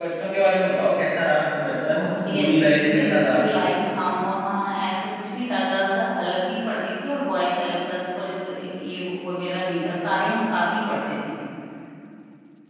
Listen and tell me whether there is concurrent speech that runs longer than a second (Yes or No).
Yes